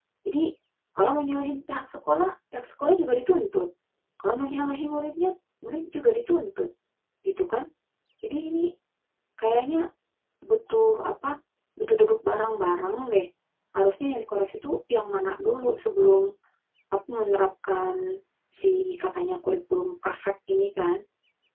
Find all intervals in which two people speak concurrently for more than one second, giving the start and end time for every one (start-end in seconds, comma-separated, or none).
none